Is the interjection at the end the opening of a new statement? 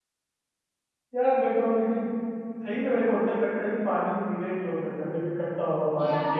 Yes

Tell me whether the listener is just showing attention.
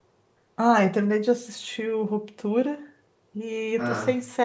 Yes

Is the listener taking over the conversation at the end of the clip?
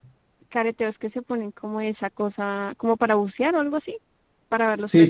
Yes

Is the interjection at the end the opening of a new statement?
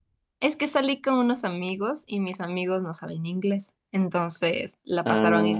No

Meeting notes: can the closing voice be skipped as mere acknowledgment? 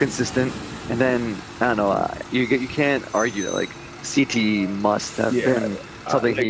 No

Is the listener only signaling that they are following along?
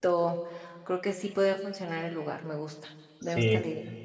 No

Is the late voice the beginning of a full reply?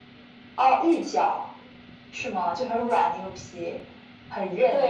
Yes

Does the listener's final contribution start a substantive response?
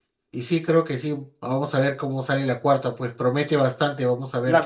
Yes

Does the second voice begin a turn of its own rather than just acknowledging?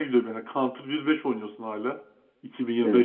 No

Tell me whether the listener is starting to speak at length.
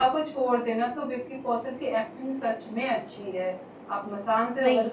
No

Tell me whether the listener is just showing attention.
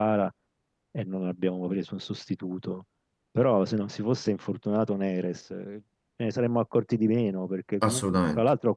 Yes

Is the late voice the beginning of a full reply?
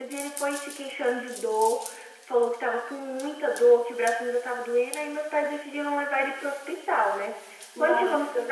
No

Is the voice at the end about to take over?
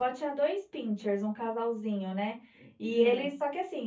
No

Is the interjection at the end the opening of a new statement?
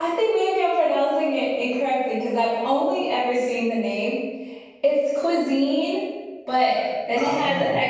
No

